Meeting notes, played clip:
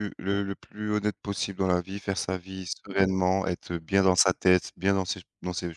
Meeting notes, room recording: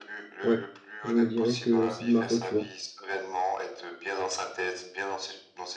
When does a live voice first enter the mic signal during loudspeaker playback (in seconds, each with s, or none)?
0.4 s